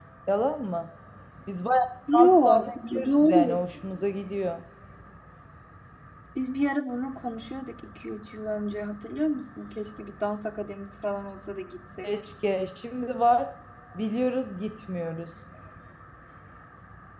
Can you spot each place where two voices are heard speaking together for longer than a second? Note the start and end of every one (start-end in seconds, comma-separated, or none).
2.1-3.6